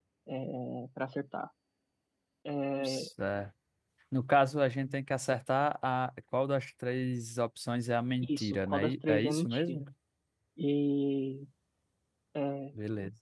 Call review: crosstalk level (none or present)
present